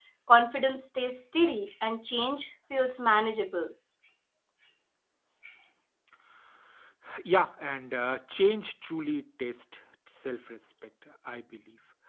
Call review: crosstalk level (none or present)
none